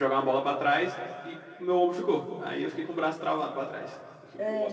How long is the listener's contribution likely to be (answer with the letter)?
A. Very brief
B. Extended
B